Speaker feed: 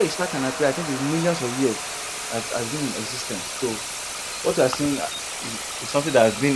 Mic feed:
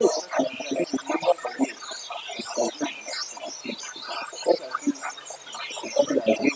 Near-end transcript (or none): none